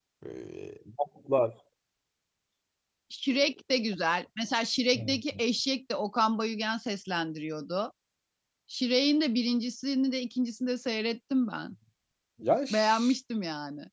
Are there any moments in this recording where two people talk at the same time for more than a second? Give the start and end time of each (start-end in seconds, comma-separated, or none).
none